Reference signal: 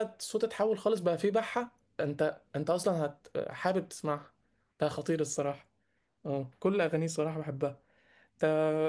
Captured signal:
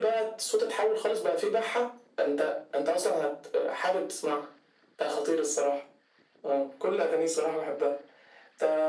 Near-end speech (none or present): none